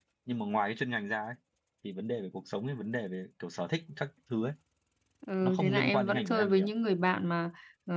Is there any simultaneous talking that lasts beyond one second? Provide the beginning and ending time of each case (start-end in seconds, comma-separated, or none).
5.4-6.7